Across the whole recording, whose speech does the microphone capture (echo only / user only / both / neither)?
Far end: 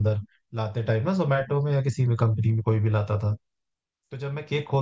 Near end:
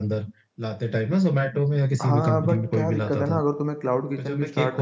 both